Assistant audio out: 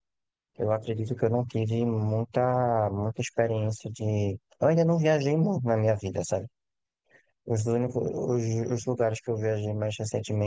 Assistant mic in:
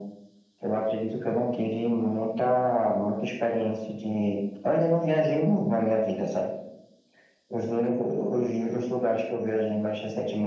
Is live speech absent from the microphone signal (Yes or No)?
Yes